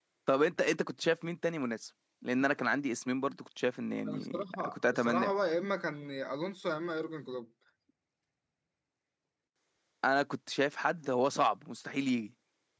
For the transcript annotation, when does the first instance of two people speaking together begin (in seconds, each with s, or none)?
4.0 s